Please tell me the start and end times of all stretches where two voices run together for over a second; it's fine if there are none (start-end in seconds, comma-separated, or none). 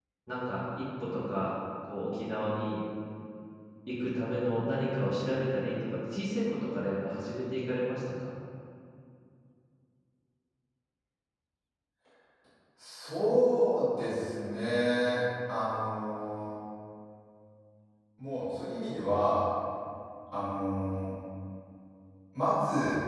none